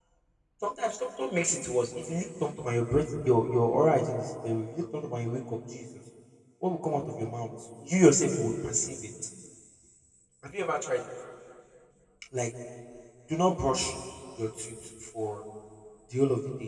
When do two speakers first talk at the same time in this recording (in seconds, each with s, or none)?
none